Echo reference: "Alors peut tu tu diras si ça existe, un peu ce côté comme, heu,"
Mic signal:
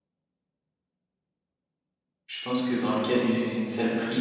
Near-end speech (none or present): present